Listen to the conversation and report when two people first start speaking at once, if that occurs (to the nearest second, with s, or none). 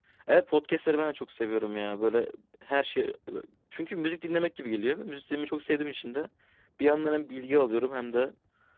none